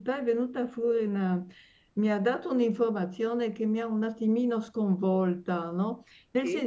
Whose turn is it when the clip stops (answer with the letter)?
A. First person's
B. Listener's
A